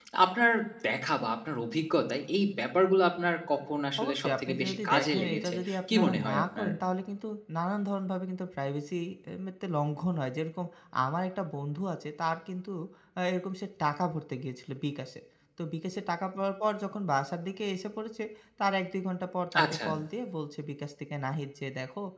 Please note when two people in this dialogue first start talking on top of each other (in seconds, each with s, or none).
4.0 s